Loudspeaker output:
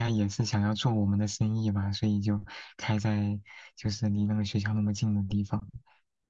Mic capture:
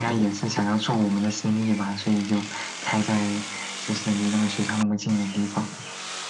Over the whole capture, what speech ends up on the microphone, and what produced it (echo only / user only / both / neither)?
echo only